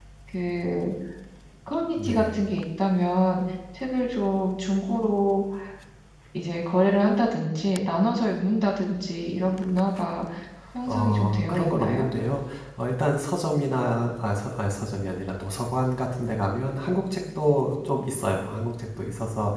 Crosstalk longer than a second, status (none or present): present